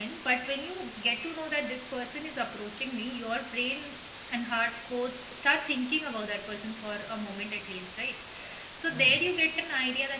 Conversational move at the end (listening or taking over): listening